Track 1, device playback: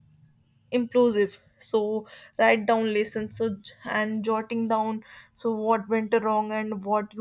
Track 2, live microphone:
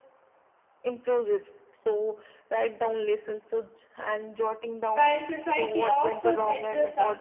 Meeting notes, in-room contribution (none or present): present